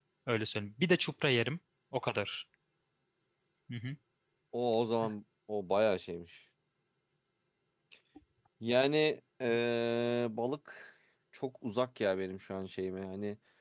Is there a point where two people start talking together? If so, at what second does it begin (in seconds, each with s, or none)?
none